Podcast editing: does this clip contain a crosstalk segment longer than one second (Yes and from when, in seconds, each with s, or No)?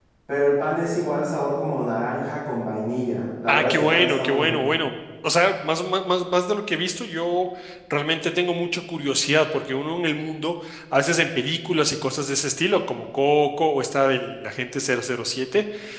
Yes, from 3.5 s